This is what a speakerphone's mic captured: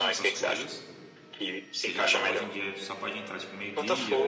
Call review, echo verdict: present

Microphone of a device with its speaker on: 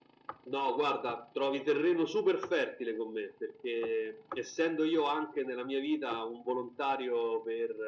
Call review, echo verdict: present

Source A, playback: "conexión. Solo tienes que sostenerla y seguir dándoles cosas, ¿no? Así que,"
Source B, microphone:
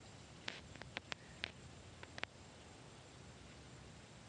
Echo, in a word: none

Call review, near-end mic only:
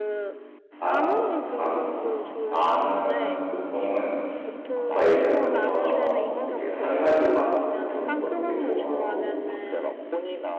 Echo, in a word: present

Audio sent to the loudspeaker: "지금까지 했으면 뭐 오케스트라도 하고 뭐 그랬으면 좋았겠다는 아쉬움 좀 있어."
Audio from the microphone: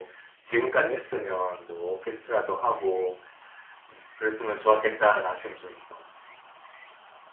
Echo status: present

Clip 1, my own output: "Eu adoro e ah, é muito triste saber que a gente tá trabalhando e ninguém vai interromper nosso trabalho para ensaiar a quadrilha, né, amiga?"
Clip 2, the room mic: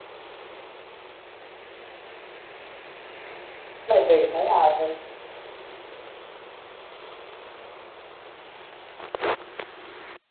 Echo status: none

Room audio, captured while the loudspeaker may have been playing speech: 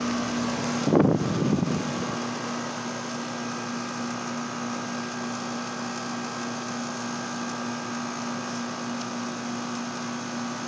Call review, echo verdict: none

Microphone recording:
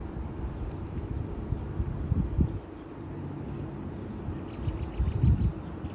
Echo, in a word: none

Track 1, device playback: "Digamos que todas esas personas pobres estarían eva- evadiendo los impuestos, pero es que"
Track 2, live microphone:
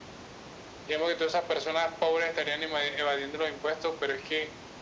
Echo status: present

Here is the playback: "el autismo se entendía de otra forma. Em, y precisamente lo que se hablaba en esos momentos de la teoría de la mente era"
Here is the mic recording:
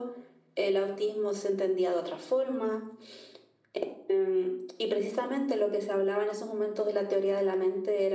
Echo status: present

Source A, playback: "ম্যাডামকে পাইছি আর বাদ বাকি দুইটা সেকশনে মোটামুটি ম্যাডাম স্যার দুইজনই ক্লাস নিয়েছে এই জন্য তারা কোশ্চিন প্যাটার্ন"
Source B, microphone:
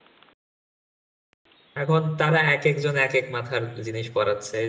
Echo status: none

